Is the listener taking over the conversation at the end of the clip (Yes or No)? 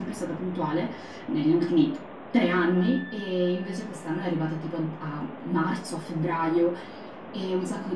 No